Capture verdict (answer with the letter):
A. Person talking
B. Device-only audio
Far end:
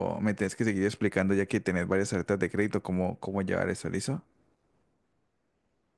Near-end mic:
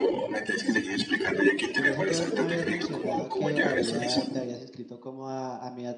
A